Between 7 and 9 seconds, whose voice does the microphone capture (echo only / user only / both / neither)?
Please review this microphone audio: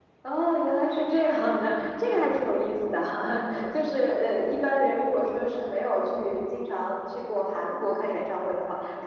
echo only